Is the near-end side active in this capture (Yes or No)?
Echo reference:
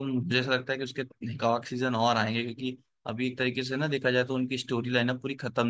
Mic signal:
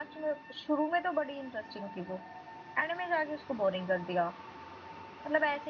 Yes